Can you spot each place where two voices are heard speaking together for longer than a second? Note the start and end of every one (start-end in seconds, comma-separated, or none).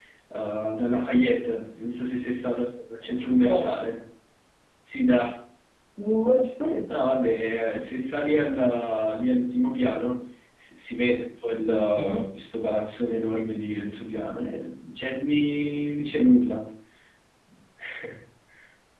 none